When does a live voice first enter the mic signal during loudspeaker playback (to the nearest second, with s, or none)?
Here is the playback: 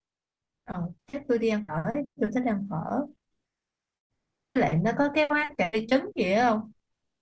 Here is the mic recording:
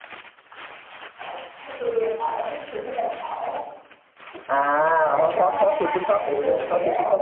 4 s